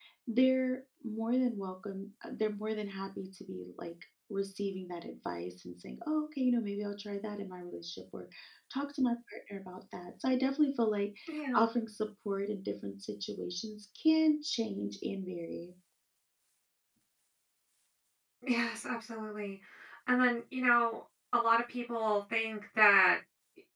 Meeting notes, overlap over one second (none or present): none